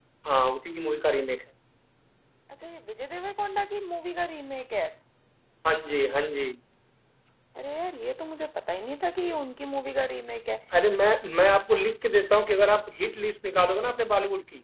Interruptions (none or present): none